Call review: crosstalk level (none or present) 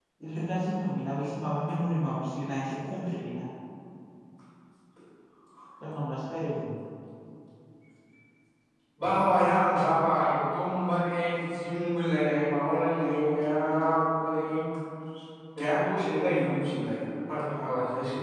none